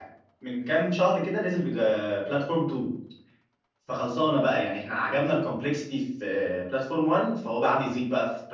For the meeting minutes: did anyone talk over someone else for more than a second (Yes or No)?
No